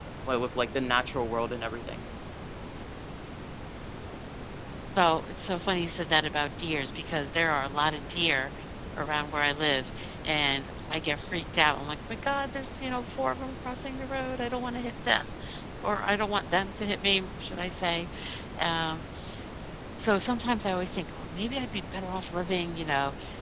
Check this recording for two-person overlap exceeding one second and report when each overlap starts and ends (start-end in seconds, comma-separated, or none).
none